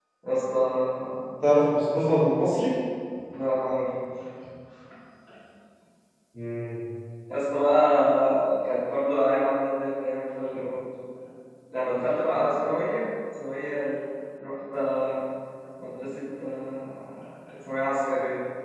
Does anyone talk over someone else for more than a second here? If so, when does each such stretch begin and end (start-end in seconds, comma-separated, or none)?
none